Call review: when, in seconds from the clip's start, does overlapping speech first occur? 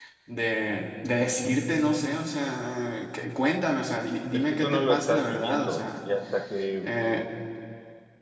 4.3 s

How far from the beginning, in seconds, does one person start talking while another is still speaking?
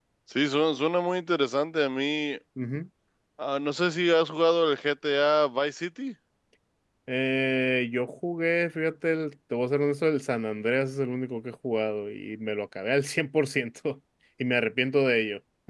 none

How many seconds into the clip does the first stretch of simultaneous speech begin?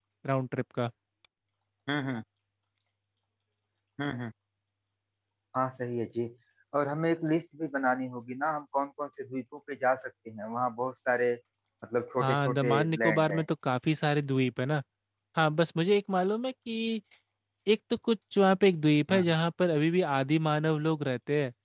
12.2 s

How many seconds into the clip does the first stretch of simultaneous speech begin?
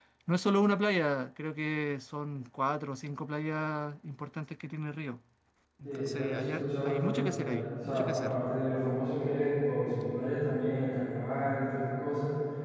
5.8 s

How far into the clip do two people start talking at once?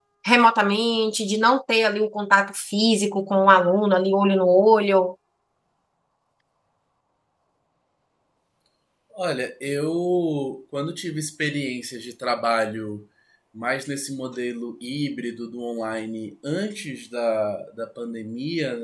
none

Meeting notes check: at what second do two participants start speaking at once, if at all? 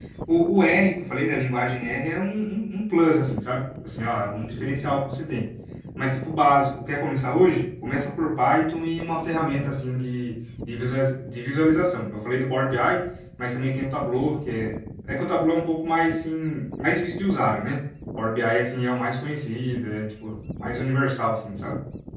none

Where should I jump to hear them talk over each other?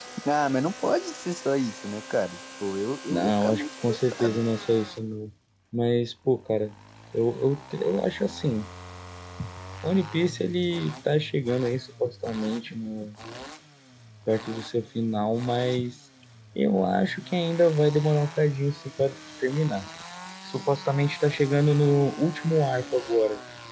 3.1 s

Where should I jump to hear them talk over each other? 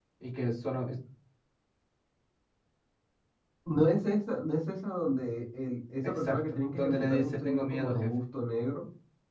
6.0 s

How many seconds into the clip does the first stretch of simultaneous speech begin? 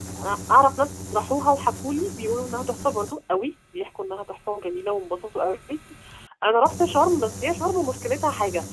none

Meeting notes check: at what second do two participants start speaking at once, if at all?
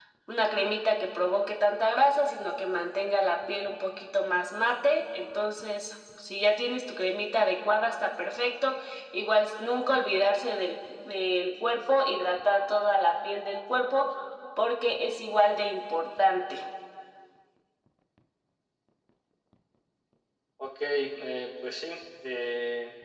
none

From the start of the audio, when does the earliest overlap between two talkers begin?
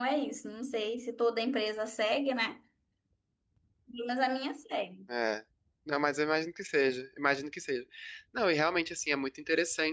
none

